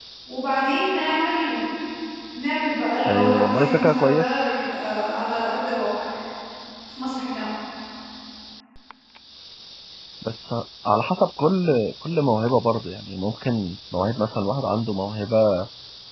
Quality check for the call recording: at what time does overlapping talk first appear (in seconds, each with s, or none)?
3.0 s